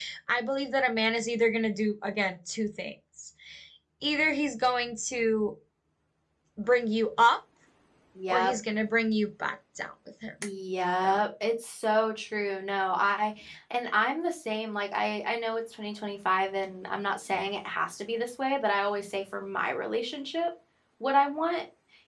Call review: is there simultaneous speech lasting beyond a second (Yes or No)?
No